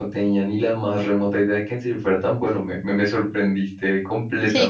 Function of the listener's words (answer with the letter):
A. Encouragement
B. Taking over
B